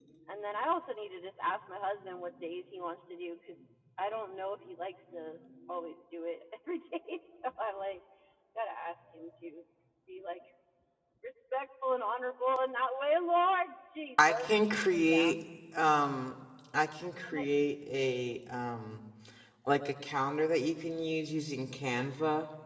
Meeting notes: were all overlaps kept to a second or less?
Yes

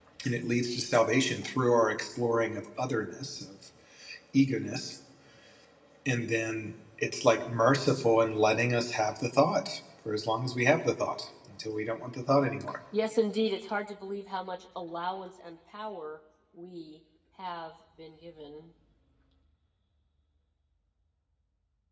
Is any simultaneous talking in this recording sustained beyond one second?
No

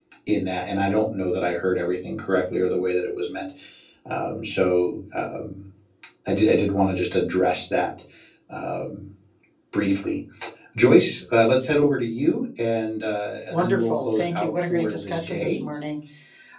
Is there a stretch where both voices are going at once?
Yes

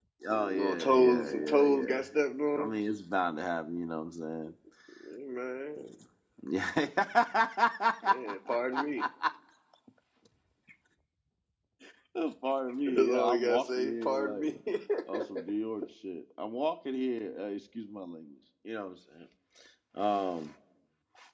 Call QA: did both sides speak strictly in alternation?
No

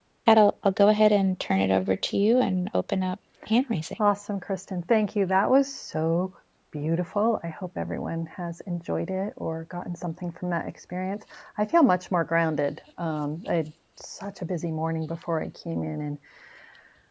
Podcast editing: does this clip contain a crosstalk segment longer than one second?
No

